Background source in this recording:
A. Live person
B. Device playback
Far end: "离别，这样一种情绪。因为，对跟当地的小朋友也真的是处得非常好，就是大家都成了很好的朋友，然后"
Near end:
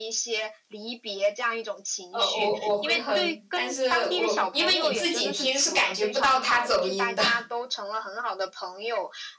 B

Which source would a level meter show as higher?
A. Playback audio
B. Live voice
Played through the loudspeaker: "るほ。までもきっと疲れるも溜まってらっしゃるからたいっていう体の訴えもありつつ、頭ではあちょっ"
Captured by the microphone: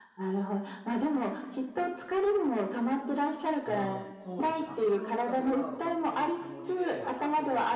A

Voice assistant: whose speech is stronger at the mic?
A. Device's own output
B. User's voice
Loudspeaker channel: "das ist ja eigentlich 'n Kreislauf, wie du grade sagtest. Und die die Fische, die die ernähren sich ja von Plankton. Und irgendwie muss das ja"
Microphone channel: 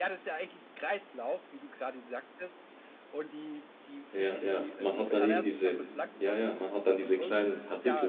B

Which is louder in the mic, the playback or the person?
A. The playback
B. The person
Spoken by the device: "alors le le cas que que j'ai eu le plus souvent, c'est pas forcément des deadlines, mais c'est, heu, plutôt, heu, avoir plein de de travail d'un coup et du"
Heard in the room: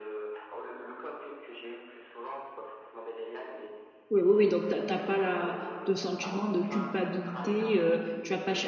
B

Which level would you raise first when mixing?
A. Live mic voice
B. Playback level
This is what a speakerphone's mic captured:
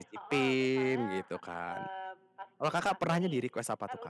B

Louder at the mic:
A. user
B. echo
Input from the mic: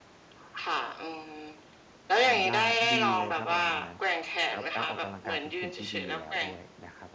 B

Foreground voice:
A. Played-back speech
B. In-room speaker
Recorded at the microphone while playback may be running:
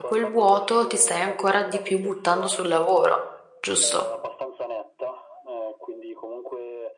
B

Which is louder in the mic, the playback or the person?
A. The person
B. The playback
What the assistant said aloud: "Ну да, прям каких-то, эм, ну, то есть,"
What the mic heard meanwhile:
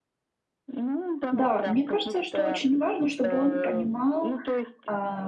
A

